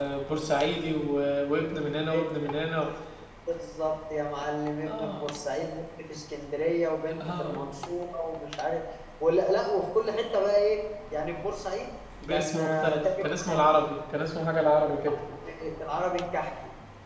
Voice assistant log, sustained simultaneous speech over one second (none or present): present